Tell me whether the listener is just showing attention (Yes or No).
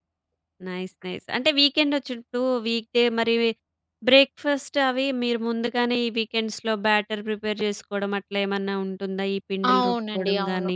No